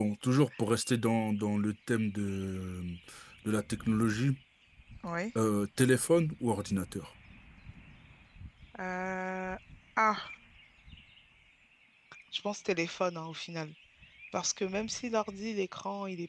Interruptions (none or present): none